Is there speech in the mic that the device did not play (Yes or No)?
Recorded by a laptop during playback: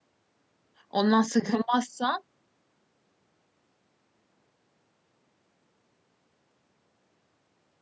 Yes